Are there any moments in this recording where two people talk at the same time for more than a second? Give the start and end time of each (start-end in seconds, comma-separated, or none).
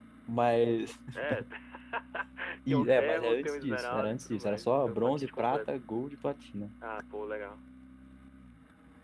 2.7-5.6